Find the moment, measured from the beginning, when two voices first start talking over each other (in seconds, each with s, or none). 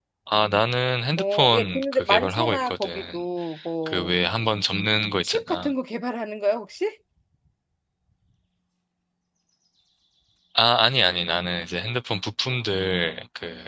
1.2 s